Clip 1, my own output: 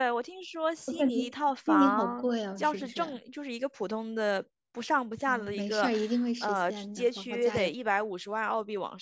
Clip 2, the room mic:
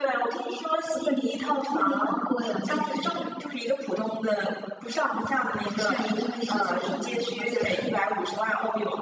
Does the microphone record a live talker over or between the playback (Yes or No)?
Yes